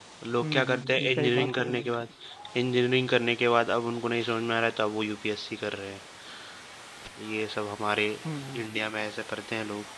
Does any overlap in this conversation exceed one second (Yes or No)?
Yes